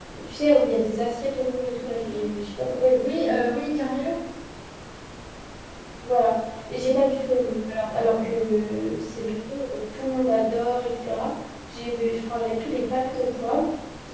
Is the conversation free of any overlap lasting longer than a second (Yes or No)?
Yes